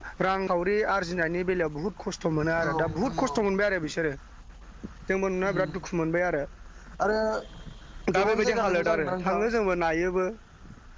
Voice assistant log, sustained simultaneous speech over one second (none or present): present